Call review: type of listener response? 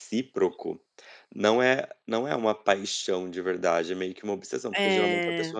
listening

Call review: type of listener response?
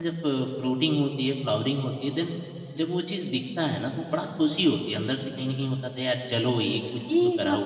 taking over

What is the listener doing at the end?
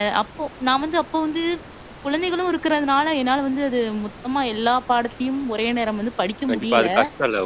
taking over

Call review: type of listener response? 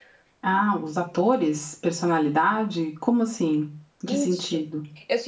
taking over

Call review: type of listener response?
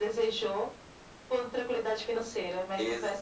taking over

